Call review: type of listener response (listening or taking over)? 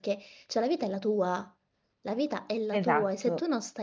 listening